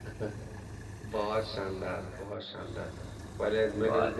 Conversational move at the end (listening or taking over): listening